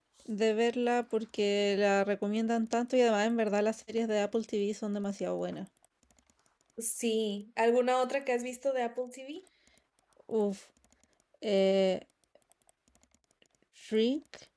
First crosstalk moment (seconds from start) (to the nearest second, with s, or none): none